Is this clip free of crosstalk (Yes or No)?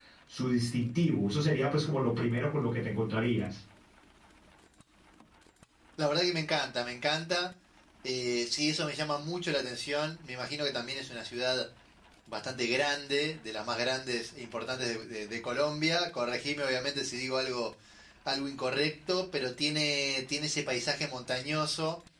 Yes